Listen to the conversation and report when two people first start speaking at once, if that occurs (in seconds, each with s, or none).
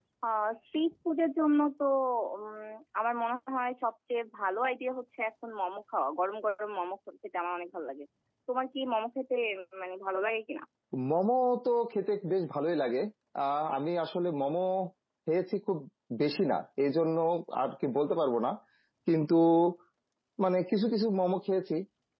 none